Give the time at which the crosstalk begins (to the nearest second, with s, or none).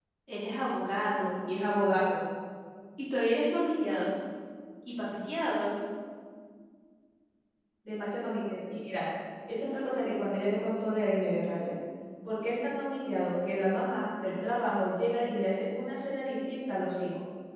none